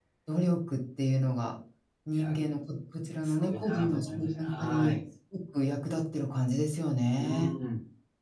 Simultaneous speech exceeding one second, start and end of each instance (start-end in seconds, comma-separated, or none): 3.1-5.0